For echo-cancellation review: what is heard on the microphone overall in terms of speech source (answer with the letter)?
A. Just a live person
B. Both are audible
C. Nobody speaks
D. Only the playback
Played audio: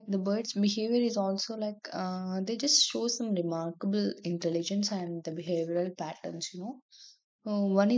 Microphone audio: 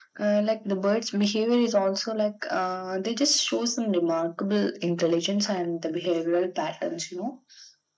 D